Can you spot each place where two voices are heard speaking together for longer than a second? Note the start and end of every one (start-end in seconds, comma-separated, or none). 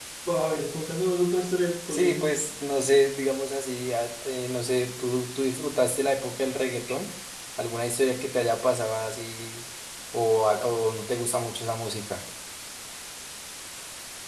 none